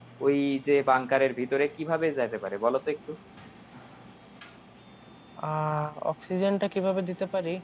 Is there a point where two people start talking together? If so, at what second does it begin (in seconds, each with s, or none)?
none